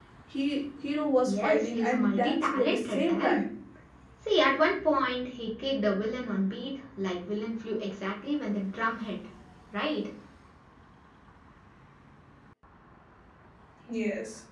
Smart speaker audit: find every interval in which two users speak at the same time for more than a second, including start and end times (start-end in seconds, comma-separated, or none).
1.3-3.4